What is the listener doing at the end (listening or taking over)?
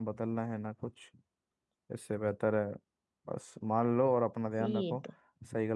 listening